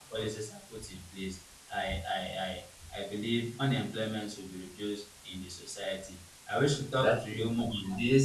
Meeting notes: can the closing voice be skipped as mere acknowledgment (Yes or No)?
Yes